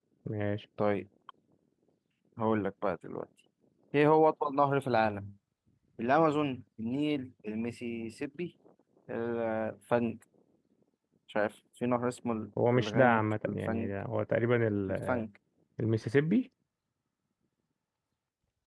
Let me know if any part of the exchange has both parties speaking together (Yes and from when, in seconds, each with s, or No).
Yes, from 12.7 s